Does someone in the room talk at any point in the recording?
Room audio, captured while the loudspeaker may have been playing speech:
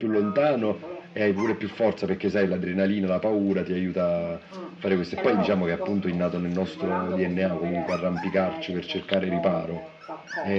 Yes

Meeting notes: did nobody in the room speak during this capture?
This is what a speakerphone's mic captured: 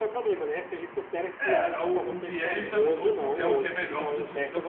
No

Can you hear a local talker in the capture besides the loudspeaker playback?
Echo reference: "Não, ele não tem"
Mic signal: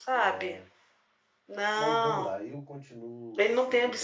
Yes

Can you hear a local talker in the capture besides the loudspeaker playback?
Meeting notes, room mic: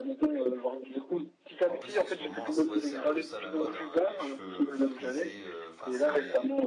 Yes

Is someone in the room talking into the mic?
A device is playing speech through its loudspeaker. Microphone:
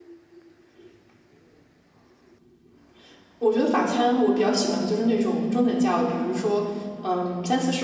Yes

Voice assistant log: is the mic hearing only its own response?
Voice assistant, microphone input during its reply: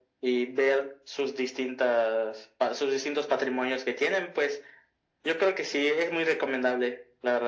Yes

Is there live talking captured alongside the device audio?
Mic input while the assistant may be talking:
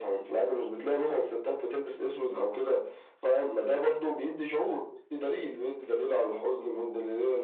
No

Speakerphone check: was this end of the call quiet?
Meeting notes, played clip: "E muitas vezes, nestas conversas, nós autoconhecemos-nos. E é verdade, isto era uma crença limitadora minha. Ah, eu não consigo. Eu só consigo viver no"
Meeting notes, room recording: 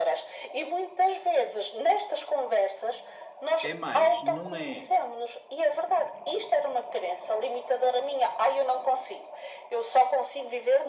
No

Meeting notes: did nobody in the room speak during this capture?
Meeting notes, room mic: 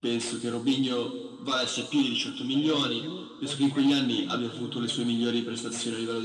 No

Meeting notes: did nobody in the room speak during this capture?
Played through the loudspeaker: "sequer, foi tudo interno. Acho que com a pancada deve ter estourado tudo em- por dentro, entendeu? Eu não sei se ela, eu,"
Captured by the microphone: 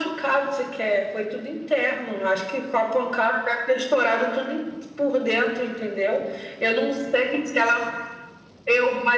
Yes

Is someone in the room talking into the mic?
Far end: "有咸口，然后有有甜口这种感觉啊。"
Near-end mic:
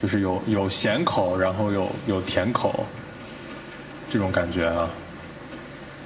No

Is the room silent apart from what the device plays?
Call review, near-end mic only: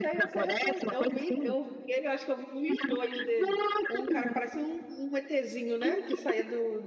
No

